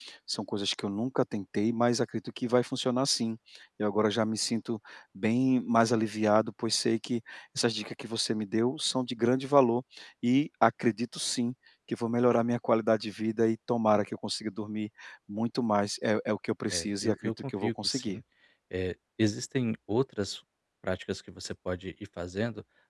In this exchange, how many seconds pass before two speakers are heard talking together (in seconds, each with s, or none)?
16.7 s